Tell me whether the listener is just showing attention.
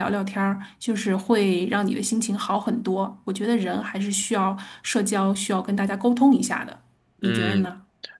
No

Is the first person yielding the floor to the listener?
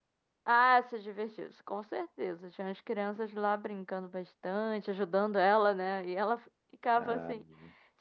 No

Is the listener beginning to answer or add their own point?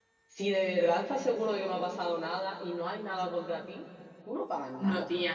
Yes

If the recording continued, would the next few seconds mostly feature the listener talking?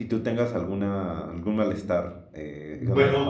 Yes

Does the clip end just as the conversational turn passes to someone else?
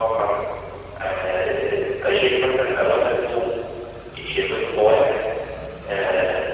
No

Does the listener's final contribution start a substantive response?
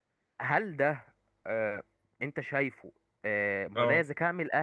No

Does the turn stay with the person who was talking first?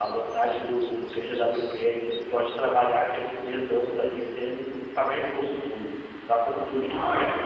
Yes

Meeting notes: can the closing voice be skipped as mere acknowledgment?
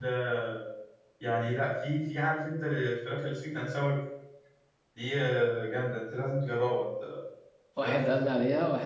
No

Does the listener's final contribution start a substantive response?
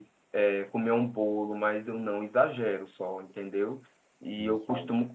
No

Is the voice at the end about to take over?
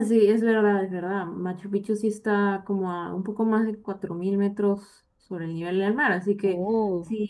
No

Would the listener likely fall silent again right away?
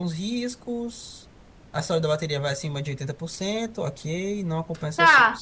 No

